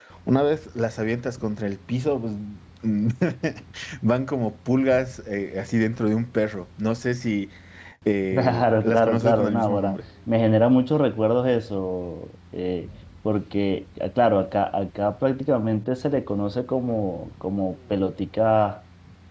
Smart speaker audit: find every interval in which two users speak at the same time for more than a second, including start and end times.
8.3-10.0

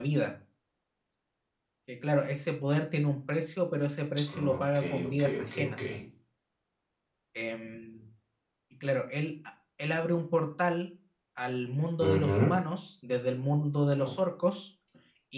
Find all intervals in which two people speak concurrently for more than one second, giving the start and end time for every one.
4.3-5.8

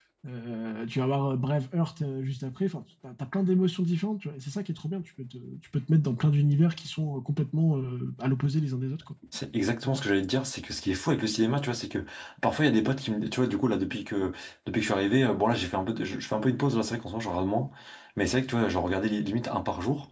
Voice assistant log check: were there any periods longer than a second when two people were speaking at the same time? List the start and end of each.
none

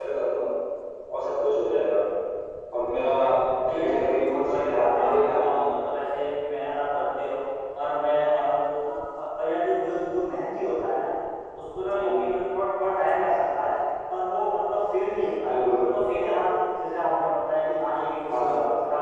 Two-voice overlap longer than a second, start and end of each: 3.8-5.8

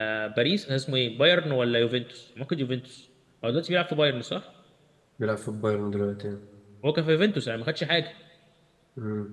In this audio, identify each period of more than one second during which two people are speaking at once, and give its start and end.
none

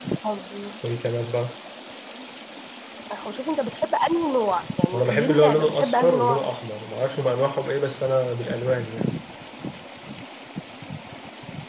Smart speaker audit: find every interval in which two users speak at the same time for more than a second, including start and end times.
4.9-6.5

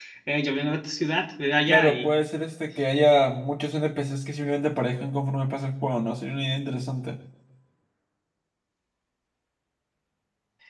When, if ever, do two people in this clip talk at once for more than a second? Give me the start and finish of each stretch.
none

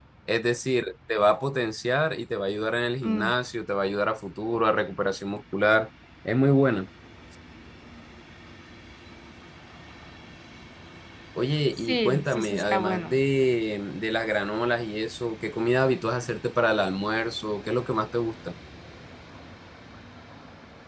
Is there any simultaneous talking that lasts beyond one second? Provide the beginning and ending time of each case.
11.9-13.2

